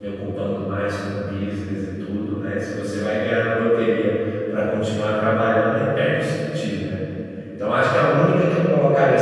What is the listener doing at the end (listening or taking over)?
listening